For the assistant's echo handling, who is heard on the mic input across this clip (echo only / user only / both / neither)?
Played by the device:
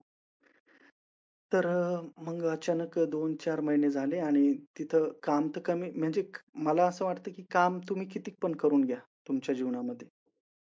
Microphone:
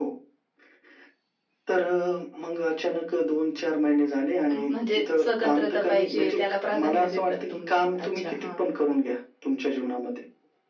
both